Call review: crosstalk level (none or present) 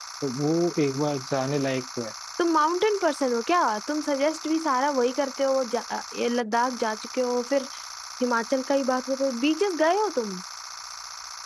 none